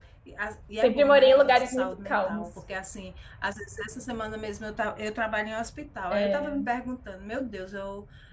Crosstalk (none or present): present